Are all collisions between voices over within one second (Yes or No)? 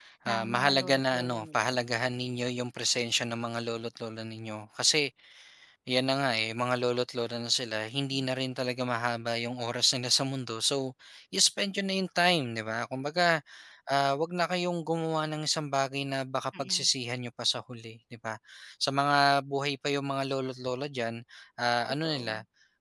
No